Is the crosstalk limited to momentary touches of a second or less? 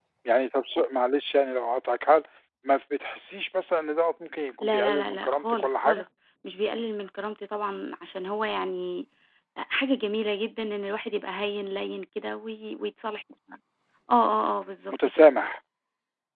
No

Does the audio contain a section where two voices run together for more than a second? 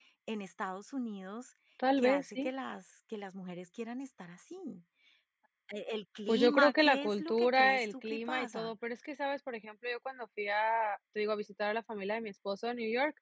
Yes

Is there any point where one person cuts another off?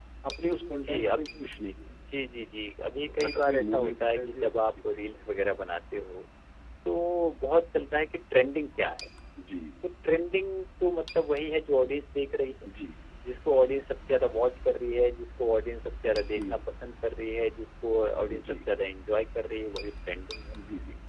Yes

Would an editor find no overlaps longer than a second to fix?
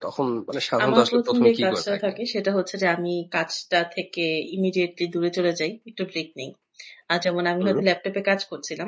No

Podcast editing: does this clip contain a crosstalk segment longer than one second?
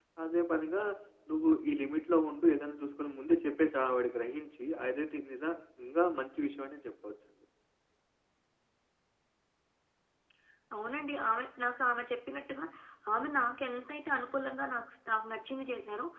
No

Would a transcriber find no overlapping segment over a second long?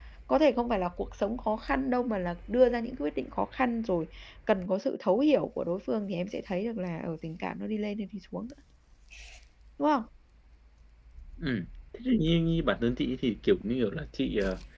Yes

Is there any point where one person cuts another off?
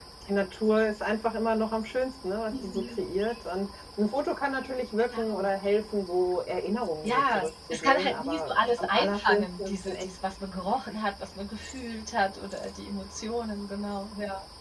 Yes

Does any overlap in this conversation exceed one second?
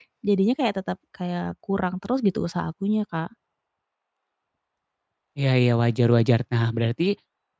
No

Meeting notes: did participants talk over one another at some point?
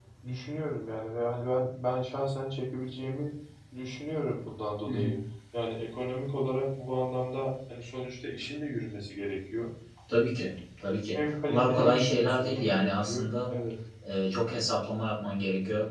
Yes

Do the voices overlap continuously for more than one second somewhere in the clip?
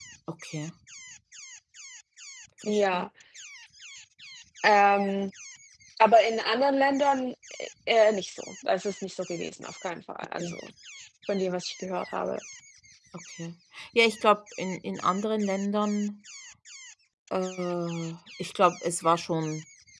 No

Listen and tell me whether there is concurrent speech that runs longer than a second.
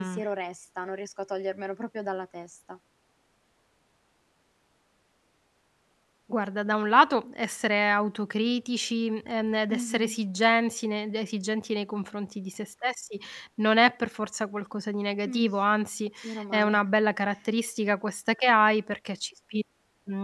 No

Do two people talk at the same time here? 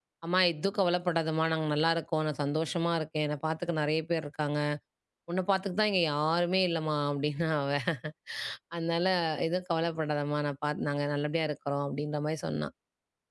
No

